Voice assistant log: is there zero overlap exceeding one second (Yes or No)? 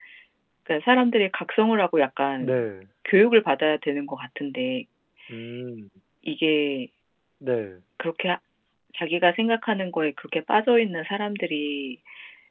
Yes